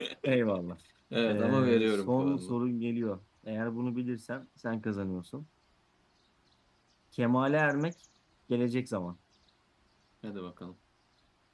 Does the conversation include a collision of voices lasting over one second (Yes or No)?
Yes